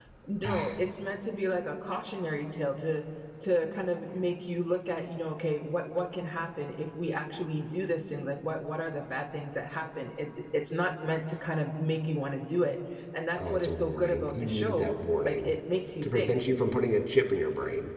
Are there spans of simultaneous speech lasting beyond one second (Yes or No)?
Yes